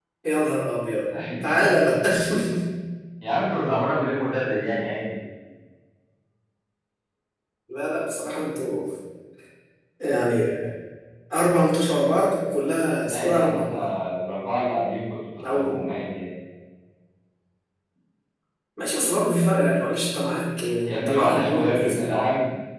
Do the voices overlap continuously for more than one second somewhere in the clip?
Yes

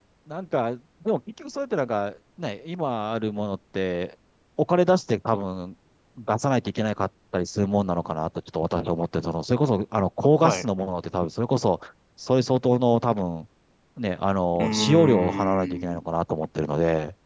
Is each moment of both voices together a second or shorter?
No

